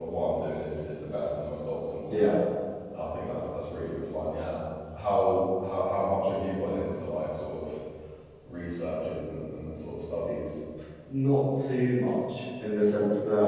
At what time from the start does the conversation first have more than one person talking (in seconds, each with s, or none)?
none